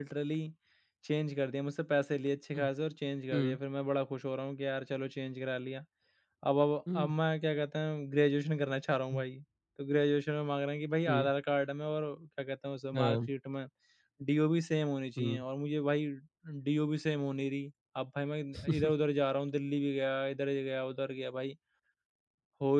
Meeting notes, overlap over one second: none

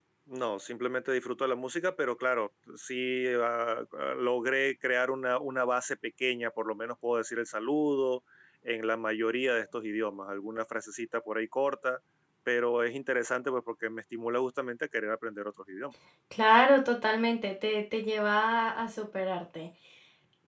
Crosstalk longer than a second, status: none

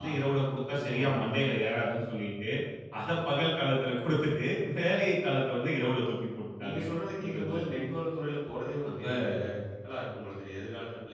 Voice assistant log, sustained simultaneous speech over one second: none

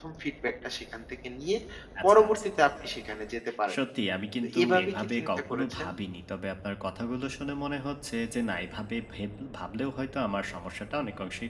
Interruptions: present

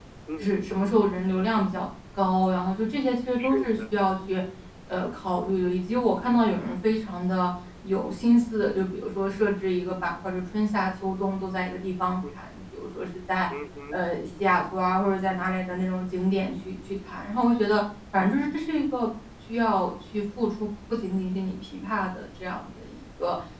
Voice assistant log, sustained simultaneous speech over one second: none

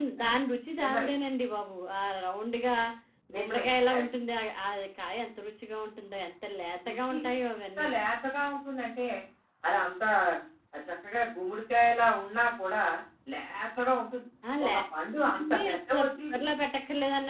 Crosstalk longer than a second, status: present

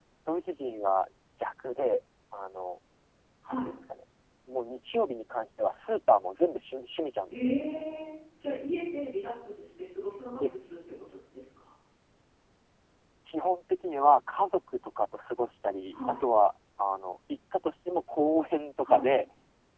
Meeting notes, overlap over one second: none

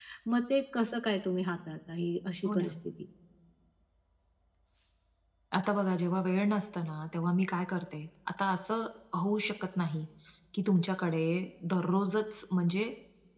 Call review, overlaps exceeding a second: none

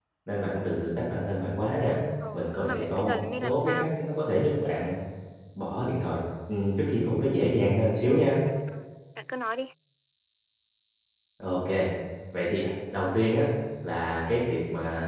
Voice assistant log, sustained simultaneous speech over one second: present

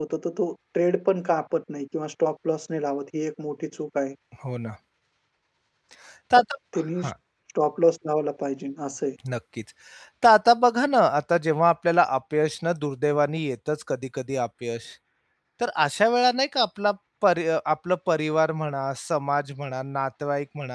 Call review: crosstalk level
none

